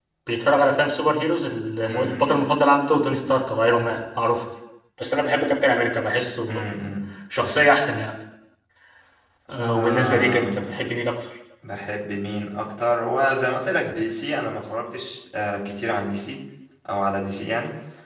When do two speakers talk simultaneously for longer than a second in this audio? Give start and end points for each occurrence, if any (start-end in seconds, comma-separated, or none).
9.6-10.8